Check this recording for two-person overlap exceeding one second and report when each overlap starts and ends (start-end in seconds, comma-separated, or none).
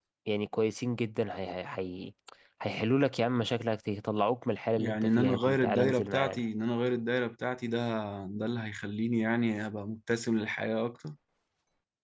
4.7-6.5